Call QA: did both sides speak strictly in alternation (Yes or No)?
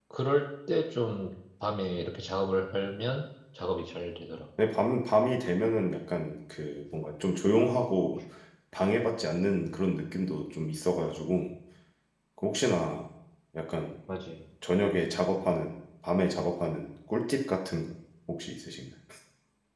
Yes